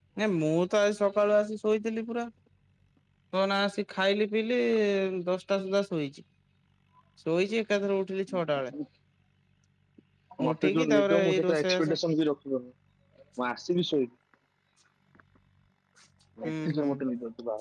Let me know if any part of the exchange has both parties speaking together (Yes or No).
Yes